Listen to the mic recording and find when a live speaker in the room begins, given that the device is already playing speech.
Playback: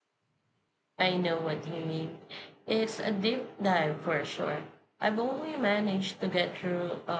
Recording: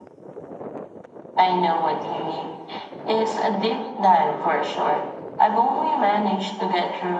none

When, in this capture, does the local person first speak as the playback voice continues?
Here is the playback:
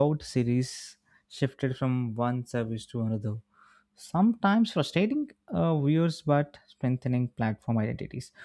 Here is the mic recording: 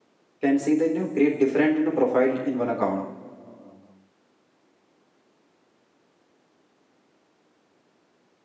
0.4 s

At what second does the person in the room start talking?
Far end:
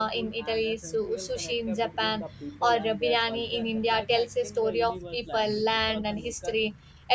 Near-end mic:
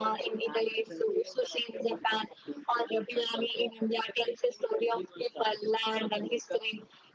none

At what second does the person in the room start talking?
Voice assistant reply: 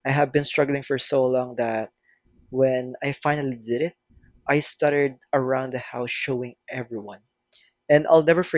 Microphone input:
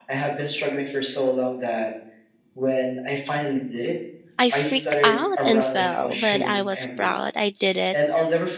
4.4 s

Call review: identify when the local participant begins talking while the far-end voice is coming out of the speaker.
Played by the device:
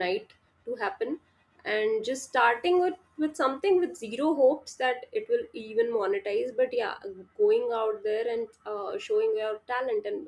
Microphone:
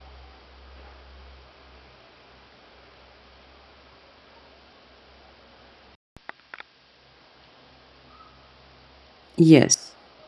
9.3 s

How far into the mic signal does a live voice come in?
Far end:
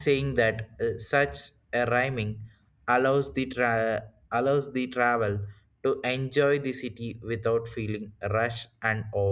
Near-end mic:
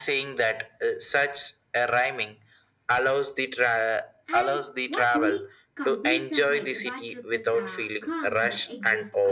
4.3 s

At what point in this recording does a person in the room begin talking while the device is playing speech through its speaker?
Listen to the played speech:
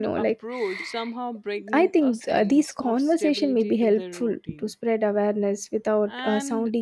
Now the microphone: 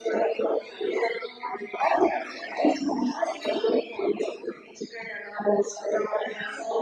none

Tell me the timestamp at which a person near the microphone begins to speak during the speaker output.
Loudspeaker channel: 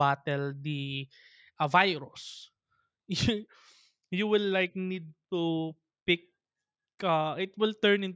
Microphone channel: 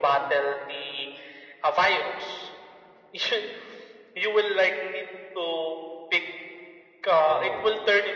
7.2 s

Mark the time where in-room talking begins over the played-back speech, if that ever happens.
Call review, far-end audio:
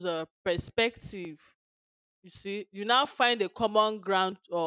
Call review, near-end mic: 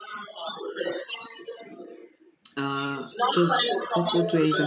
2.5 s

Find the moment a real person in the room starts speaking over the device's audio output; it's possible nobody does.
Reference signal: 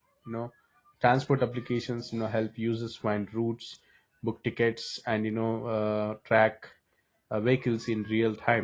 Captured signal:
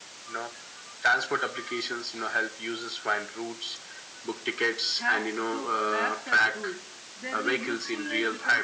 5.0 s

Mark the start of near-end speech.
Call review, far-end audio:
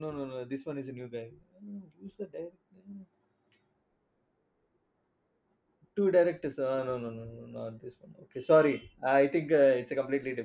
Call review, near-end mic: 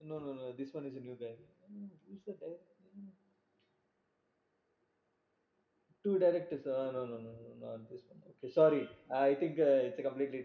none

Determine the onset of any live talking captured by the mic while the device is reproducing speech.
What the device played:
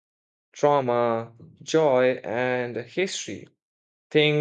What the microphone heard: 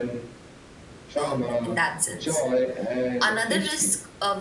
1.2 s

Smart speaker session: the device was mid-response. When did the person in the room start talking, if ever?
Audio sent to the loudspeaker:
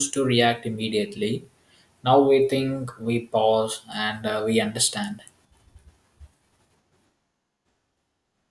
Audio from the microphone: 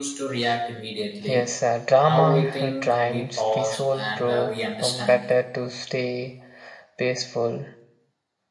1.3 s

